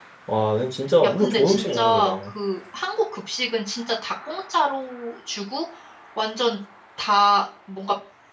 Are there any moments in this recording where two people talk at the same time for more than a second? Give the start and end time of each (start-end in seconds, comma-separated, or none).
1.0-2.3